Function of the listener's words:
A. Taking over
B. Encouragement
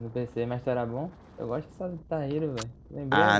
A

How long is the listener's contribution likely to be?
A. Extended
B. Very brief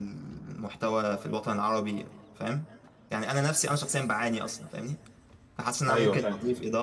B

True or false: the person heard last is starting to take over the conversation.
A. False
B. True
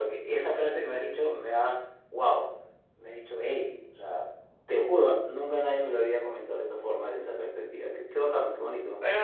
B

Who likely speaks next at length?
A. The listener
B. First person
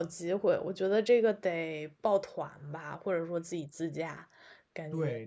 A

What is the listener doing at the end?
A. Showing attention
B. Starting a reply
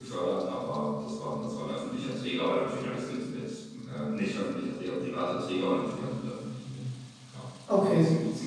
A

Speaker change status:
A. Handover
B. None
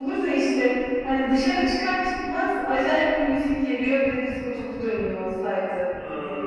A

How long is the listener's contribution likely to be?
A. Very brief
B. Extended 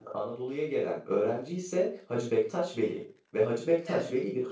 A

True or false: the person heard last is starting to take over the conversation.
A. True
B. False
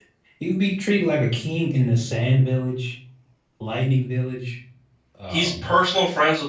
A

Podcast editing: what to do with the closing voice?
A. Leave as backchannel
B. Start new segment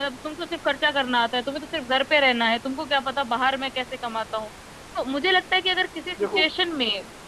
A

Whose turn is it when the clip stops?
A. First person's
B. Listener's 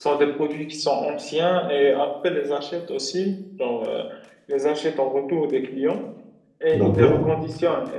A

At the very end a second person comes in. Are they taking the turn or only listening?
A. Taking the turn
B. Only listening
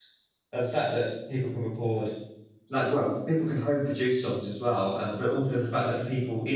B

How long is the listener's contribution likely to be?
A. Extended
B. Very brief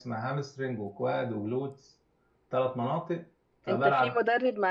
A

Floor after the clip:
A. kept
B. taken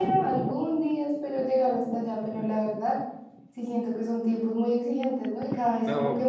A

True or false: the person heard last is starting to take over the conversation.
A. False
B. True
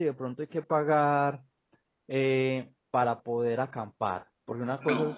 A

